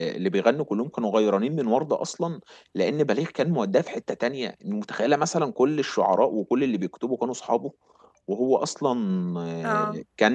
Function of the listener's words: listening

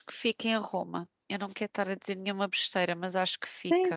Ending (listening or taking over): taking over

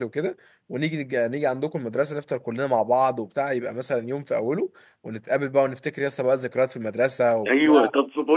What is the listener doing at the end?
taking over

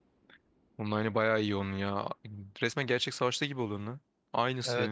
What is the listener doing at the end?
taking over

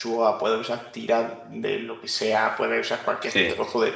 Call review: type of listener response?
listening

